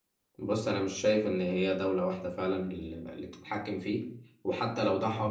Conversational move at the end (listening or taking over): listening